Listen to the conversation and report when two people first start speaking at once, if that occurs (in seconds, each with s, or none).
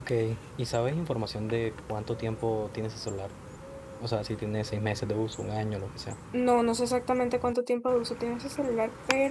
none